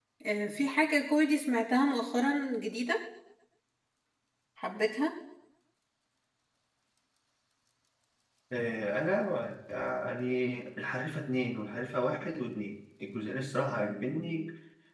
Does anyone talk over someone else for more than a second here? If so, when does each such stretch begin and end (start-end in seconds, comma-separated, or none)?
none